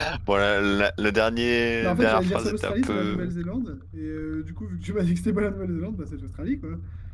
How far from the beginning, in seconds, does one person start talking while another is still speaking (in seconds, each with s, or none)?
1.8 s